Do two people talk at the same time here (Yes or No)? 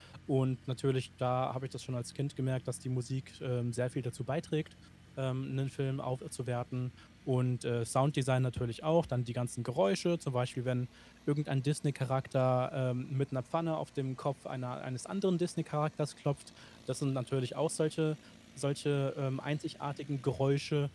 No